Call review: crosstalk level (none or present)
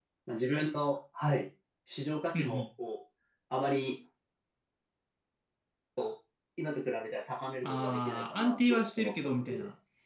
present